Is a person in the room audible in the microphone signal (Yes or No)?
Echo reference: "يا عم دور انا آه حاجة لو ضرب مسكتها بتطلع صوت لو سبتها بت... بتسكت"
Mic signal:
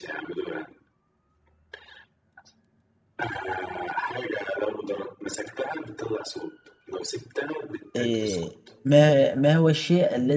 Yes